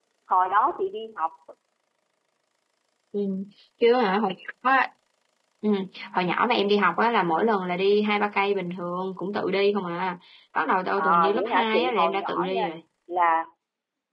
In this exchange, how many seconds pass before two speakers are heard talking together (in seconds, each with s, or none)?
11.0 s